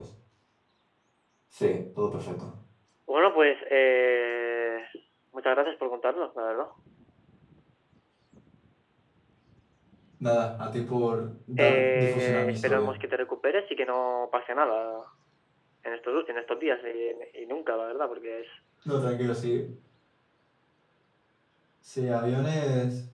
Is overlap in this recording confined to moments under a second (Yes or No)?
No